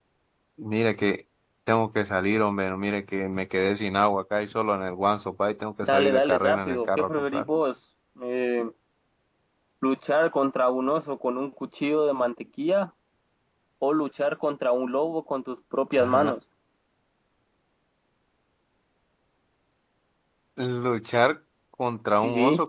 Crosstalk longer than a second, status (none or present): present